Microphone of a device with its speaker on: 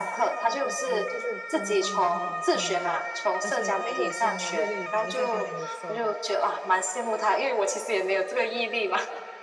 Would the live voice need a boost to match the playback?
Yes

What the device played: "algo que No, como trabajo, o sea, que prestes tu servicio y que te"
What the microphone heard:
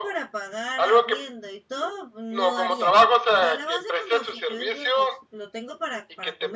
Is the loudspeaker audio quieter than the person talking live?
No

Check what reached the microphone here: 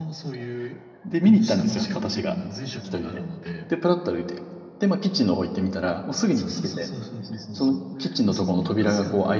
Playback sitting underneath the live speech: Yes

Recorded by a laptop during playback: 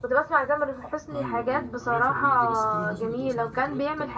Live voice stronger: No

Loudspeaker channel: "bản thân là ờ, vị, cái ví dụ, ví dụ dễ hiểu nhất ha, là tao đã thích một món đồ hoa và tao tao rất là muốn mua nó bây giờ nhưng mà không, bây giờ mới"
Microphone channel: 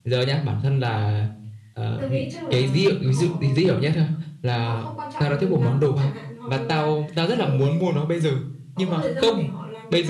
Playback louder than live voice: Yes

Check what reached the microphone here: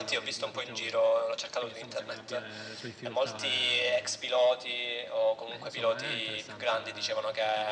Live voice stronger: No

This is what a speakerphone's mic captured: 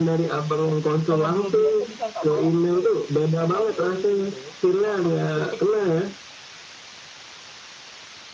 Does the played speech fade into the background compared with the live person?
No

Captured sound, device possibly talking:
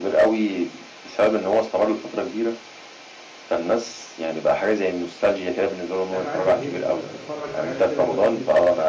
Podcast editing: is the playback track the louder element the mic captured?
Yes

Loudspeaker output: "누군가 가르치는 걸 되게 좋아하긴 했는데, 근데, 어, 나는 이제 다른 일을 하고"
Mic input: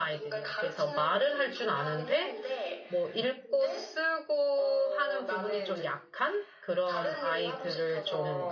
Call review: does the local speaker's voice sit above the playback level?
Yes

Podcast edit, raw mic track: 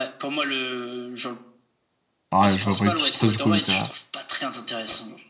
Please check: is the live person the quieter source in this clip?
No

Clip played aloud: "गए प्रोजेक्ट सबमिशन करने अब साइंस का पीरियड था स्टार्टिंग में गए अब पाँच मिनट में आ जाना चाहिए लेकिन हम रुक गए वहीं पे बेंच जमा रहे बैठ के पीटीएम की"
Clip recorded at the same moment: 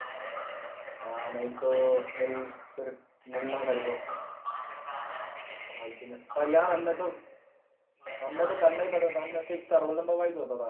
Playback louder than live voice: No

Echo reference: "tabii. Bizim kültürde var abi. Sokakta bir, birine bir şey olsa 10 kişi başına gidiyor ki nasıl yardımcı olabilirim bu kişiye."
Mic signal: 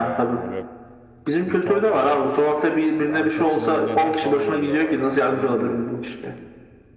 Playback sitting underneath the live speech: No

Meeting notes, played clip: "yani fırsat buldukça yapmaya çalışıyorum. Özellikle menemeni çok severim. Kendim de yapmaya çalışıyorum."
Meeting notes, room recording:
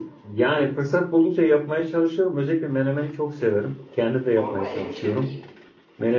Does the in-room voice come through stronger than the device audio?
No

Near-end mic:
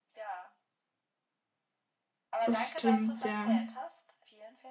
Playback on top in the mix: No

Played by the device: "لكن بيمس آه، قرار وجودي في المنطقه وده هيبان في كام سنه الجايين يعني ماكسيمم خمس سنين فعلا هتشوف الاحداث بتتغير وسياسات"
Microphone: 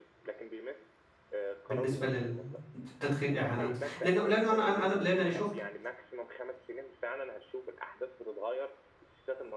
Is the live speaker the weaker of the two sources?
No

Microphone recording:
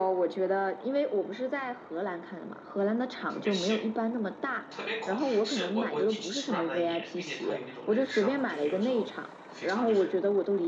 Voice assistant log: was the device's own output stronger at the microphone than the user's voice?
Yes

